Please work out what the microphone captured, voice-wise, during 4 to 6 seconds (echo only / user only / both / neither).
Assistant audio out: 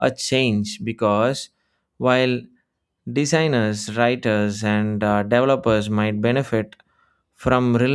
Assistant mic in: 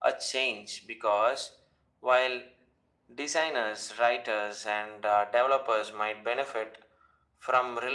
echo only